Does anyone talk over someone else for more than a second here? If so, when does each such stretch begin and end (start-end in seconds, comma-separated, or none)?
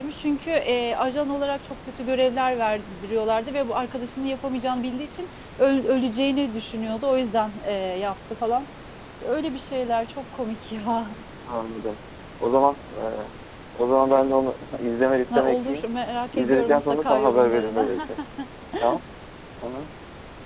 16.3-17.9